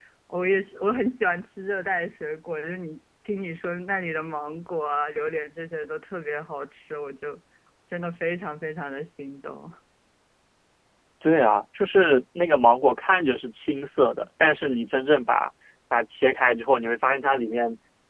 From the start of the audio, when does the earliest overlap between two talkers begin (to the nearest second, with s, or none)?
none